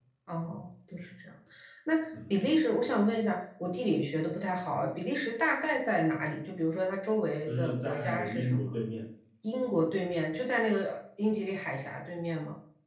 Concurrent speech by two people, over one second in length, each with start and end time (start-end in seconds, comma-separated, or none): 7.5-8.8